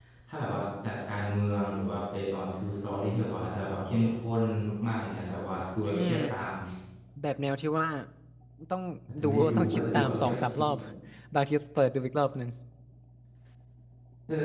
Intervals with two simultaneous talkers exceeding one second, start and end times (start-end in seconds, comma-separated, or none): 9.2-10.6